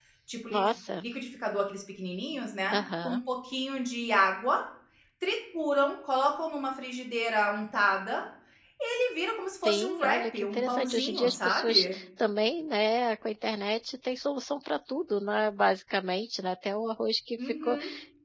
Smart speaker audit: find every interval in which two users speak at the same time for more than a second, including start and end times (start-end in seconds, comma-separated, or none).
9.7-12.0